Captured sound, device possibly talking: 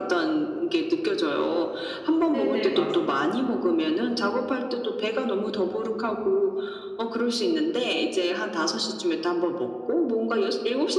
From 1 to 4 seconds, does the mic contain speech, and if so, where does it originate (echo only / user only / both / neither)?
both